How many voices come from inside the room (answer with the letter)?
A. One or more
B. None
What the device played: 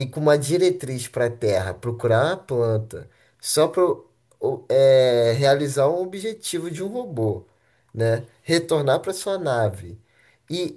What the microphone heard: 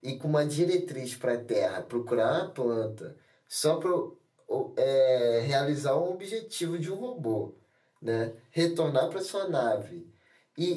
B